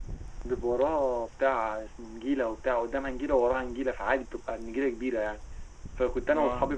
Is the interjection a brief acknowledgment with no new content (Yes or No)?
Yes